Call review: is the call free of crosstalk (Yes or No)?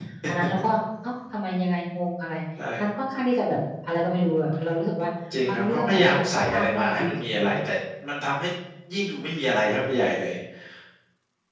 No